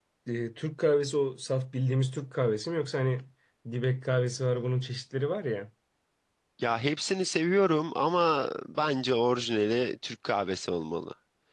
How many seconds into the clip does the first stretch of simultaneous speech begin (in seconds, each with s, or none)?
none